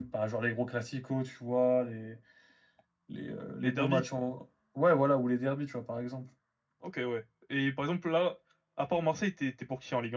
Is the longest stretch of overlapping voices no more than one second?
Yes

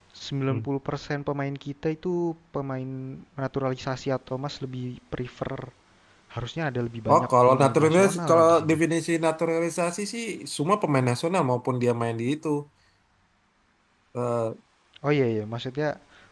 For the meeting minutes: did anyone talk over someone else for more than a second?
Yes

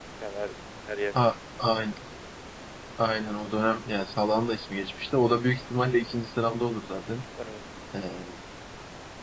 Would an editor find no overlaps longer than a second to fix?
Yes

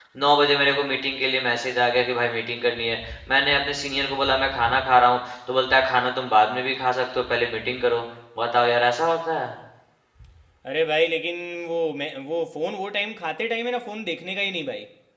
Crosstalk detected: No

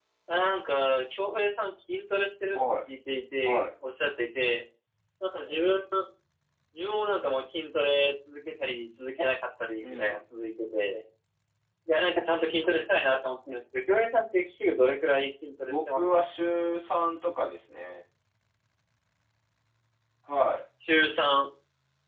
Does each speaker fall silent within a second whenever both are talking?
Yes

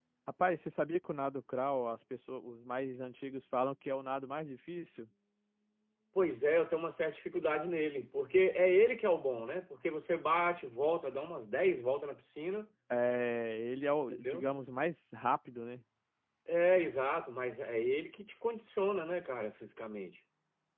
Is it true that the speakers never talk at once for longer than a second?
Yes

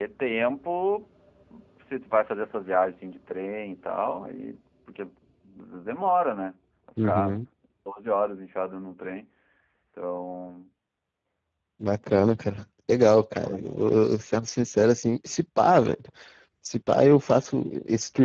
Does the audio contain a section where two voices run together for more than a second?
No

